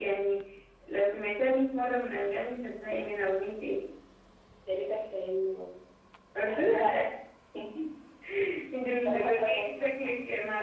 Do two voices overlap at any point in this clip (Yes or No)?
Yes